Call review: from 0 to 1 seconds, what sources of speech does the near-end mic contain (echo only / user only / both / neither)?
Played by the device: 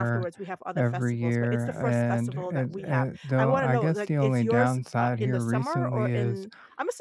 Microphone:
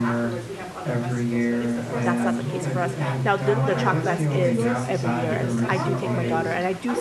echo only